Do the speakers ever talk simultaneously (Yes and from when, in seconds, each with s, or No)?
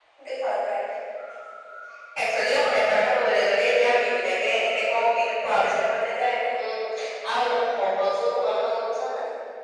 No